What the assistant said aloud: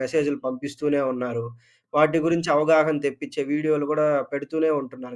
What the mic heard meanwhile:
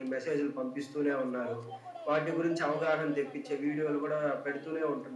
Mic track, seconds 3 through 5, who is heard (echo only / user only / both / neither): both